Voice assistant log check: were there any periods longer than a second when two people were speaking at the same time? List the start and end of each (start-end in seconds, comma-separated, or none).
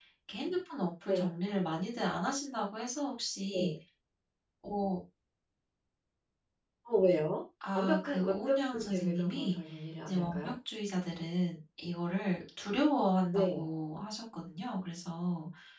7.7-9.6